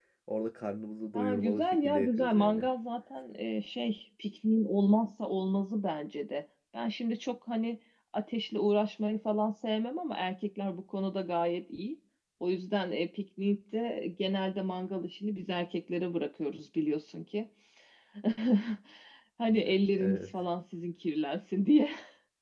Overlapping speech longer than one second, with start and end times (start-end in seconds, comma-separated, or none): 1.1-2.7